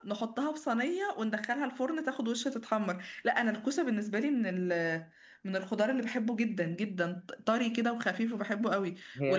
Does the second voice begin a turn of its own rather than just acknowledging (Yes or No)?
No